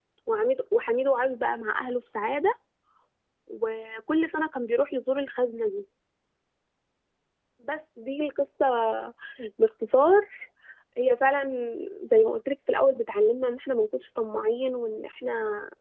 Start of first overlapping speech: none

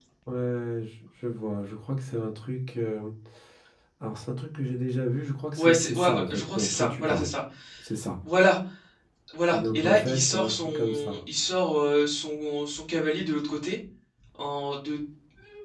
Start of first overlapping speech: 5.6 s

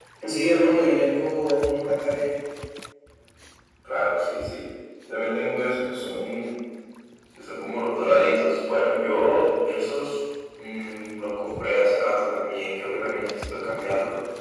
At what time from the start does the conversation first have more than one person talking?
none

